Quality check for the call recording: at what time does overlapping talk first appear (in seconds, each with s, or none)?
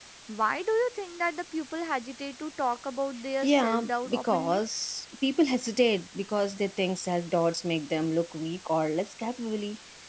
3.4 s